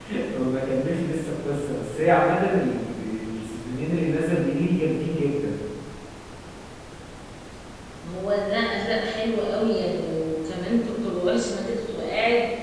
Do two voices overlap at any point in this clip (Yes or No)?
No